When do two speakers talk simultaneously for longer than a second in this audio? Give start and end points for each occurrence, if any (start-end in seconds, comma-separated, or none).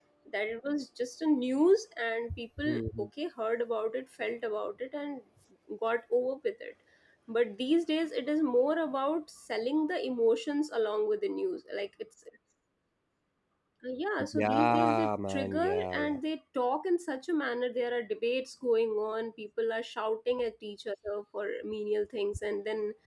14.3-16.2